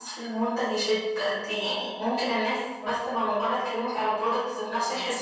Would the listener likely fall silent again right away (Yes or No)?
Yes